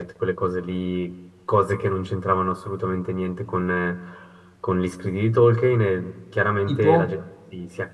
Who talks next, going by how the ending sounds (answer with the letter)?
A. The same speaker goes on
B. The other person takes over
A